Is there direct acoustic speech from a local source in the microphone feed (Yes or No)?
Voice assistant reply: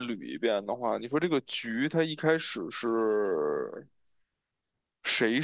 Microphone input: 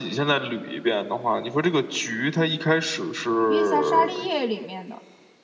Yes